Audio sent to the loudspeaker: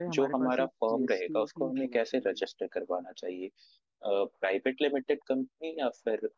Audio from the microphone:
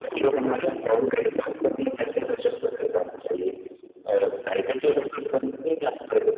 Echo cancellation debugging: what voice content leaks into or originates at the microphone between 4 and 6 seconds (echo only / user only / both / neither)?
echo only